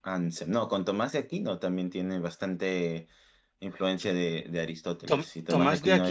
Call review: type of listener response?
taking over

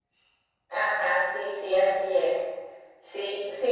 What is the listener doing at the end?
listening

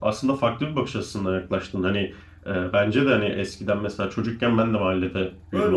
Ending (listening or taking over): taking over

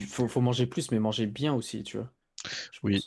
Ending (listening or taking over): taking over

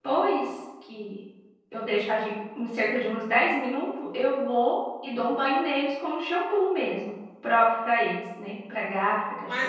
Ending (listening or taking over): taking over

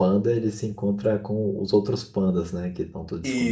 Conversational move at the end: taking over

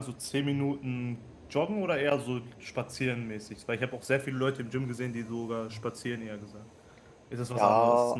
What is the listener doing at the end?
taking over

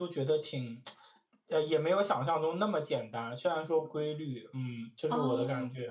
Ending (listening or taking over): taking over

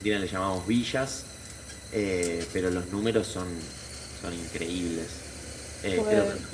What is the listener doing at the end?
listening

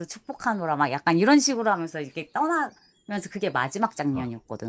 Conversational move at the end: taking over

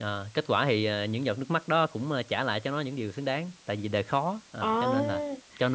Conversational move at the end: listening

